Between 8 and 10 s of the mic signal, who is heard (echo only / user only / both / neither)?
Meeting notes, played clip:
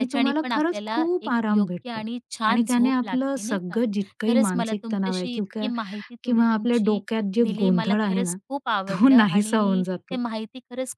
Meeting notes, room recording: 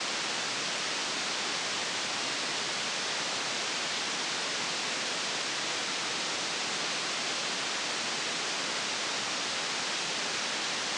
neither